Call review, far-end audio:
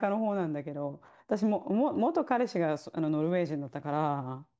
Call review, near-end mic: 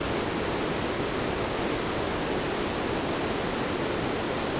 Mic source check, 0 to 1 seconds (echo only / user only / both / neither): neither